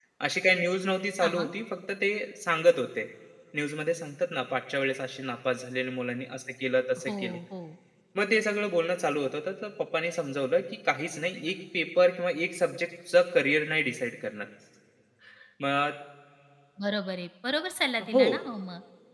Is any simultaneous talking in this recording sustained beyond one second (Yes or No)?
No